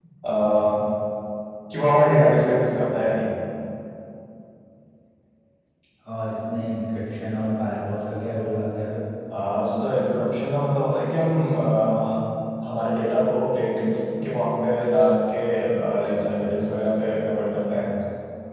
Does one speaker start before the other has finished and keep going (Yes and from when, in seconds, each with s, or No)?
No